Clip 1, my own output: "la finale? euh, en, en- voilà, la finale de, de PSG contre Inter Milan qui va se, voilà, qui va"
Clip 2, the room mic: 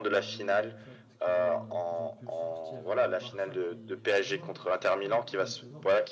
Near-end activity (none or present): present